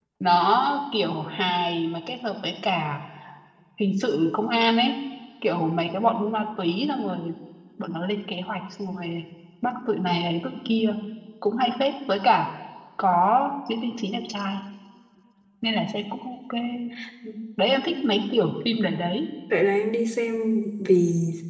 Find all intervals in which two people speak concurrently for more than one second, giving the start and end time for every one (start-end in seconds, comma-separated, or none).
none